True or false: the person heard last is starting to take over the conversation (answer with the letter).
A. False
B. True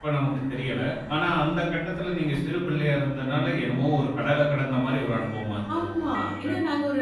B